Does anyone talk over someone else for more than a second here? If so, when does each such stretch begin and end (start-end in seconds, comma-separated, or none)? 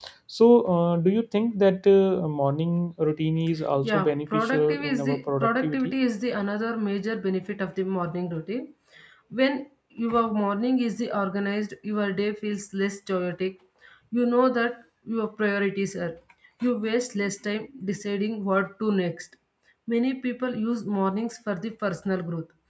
3.8-5.9